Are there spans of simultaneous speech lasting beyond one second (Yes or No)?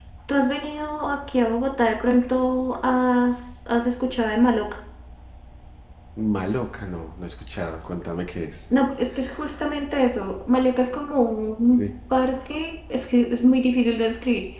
No